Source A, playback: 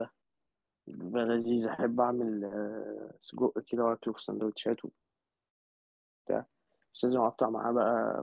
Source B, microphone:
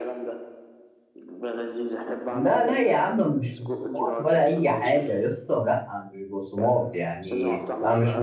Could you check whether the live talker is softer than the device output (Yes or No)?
No